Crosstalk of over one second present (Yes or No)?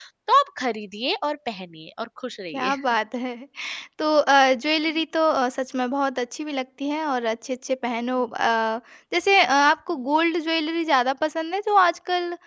No